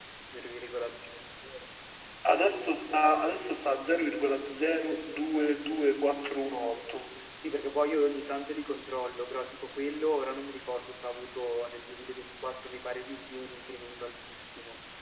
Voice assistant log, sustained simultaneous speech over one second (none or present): none